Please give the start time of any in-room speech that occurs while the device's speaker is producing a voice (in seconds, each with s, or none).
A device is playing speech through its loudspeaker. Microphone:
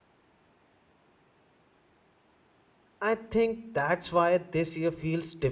3.0 s